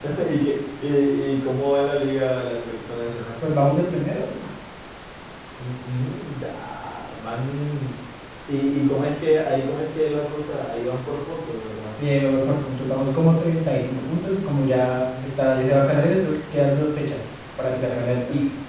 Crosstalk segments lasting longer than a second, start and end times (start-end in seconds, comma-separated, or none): none